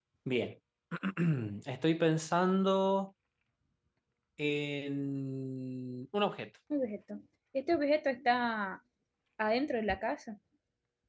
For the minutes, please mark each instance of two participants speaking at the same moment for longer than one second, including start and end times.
none

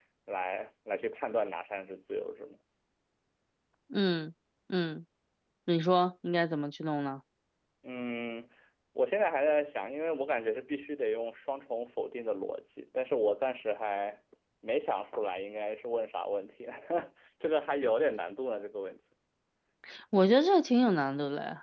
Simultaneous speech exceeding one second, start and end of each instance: none

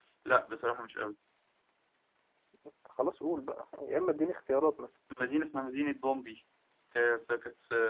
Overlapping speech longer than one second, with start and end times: none

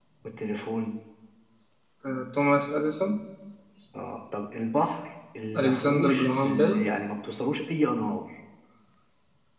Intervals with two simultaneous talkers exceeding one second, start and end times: 5.5-6.8

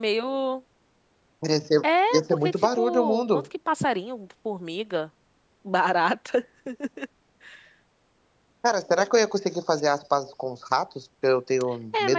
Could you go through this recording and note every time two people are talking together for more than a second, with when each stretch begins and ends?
2.1-3.4

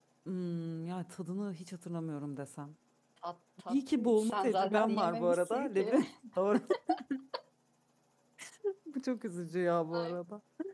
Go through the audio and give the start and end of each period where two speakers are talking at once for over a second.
3.7-5.9

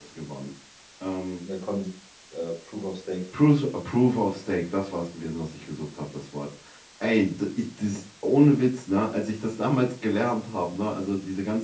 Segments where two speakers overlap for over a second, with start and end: none

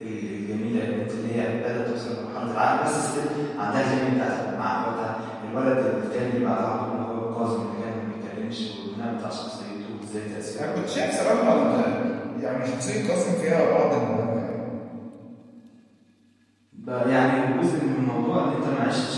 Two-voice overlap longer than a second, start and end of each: 10.6-11.9

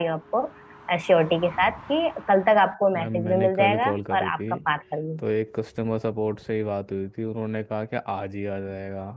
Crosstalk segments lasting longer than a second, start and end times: 3.0-4.4

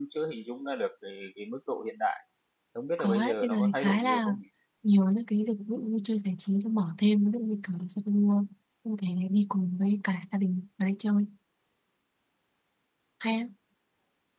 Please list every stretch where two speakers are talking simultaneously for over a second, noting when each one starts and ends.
3.0-4.4

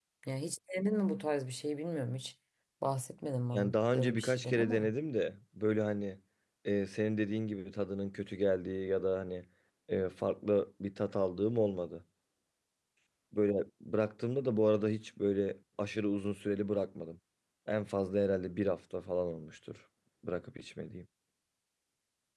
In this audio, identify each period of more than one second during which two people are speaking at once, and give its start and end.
3.5-4.9

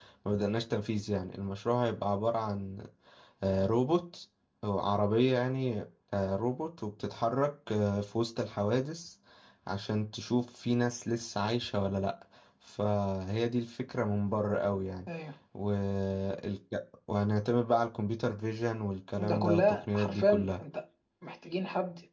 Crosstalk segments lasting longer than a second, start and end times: 19.2-20.6

